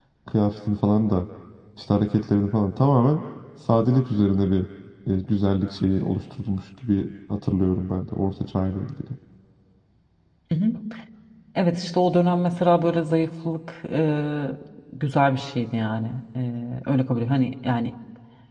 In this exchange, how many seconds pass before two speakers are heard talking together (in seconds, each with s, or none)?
none